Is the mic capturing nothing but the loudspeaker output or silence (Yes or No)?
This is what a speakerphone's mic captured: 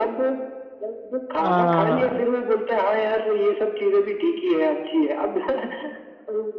No